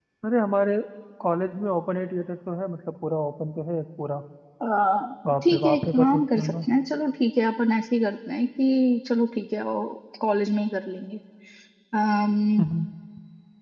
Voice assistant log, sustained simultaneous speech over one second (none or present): present